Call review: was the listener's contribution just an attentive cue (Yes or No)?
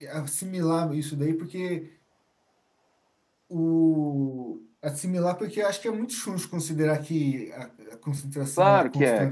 No